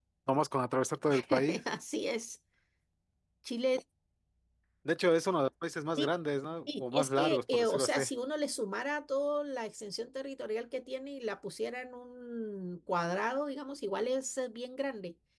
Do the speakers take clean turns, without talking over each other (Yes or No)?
No